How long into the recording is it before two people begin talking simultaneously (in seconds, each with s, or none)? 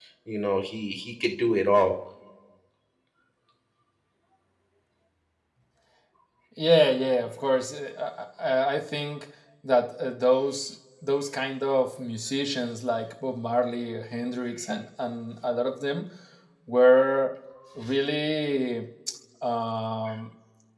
none